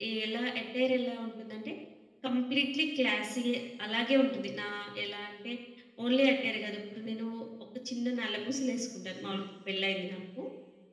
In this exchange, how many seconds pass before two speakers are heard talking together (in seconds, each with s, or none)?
none